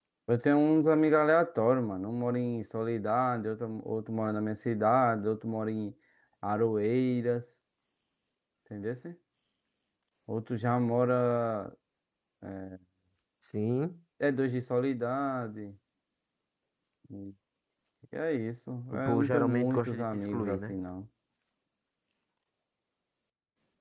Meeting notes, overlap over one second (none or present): present